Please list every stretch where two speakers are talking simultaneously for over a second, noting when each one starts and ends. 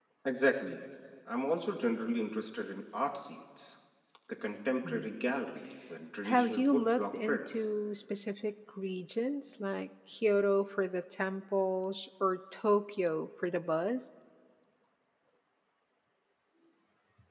6.2-7.7

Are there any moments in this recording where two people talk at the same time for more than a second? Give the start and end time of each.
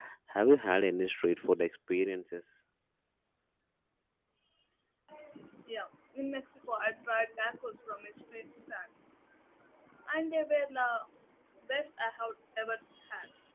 none

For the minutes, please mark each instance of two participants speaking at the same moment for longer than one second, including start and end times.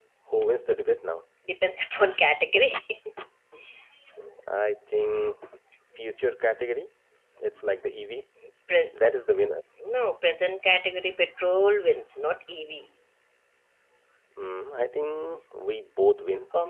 none

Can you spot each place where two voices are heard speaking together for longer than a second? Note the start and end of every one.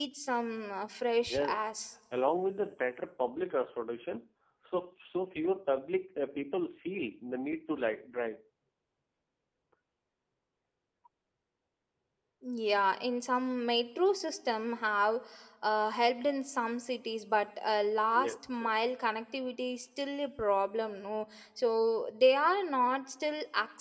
none

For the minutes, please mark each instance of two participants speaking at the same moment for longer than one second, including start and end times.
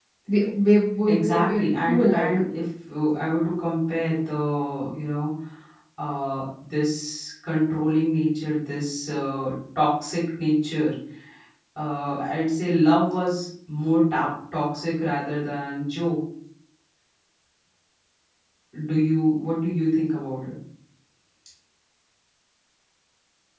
1.1-2.3

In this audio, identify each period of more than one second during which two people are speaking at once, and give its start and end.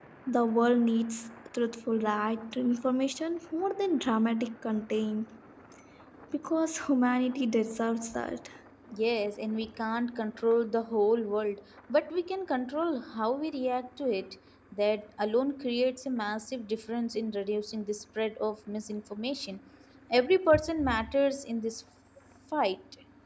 none

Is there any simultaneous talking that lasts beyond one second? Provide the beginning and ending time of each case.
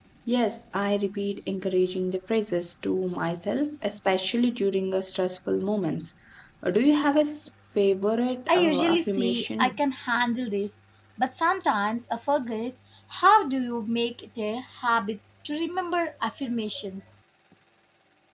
8.5-9.8

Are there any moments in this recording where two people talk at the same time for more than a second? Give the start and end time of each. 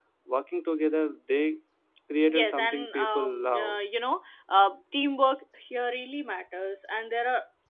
2.3-3.8

